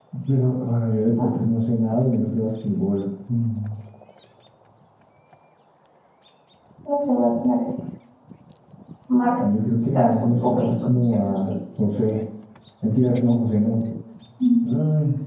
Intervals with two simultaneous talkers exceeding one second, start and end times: 9.9-11.8

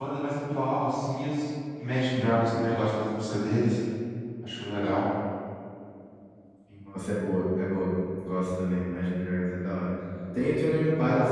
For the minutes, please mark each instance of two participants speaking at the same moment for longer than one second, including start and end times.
none

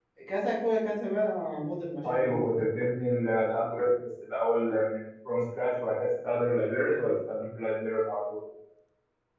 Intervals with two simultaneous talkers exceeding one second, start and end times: none

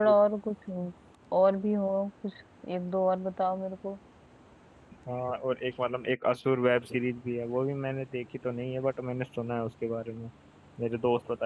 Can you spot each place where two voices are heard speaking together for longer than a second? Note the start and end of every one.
none

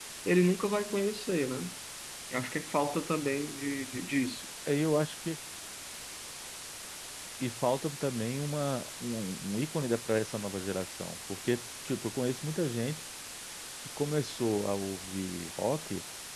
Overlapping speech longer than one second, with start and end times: none

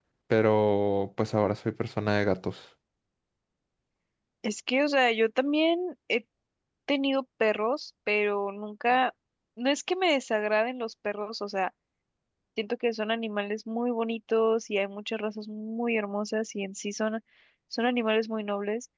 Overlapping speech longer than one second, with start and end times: none

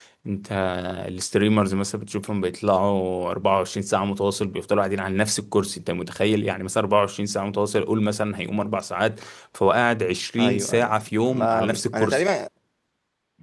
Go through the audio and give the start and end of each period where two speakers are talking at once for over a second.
10.4-12.2

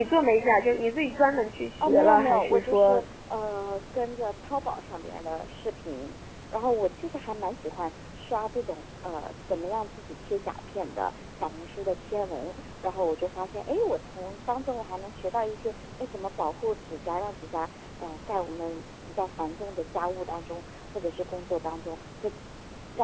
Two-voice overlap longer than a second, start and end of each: 1.8-3.0

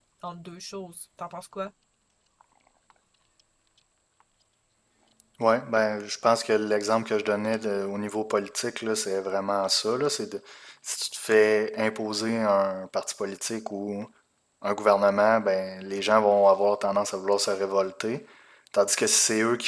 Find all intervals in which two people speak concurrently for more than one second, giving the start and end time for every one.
none

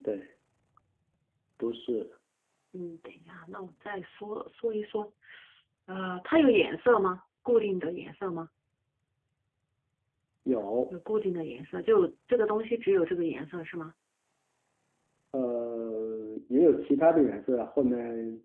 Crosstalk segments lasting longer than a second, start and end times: none

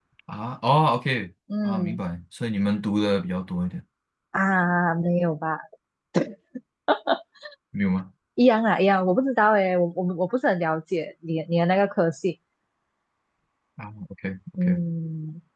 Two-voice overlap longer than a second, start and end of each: none

